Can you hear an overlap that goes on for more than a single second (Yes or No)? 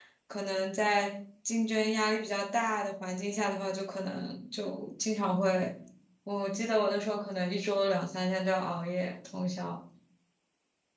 No